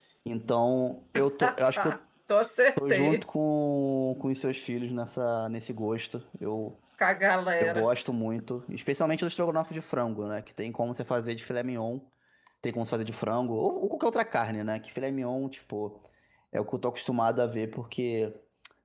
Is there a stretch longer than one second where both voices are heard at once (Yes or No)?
No